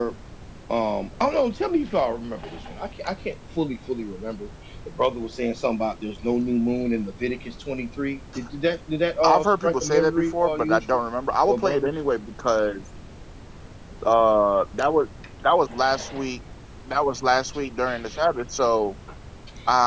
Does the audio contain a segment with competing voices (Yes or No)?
Yes